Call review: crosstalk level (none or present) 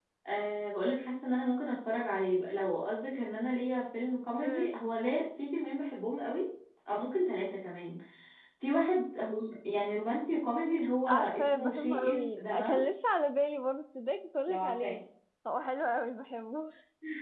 present